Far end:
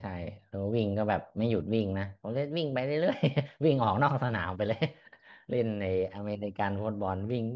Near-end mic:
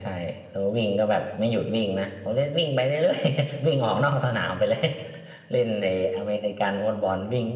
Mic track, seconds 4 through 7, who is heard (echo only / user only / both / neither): echo only